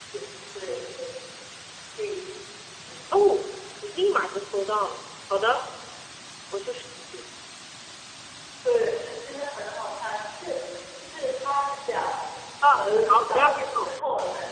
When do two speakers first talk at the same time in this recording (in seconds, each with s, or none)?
12.7 s